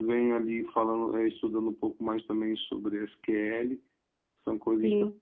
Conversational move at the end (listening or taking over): listening